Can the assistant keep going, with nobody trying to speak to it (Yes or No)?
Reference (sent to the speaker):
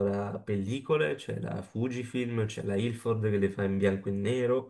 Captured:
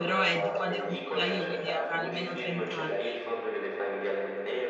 No